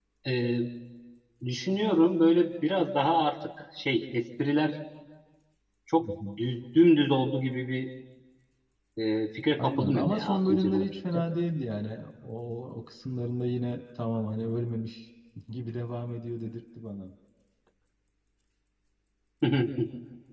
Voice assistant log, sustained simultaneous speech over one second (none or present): present